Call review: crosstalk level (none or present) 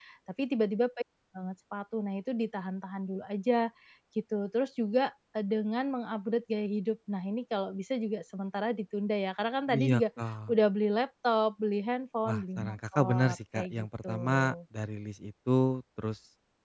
present